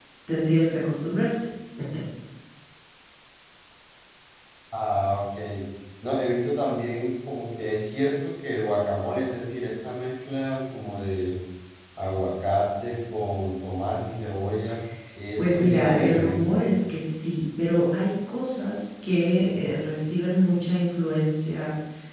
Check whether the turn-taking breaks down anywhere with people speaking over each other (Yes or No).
Yes